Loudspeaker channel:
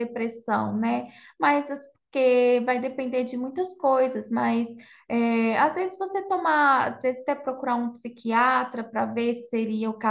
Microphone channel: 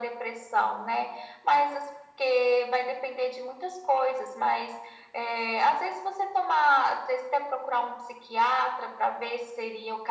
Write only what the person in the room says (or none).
none